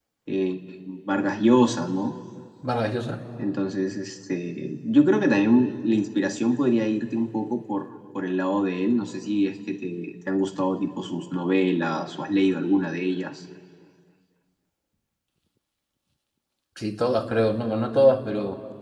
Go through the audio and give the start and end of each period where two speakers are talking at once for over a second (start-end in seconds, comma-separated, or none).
none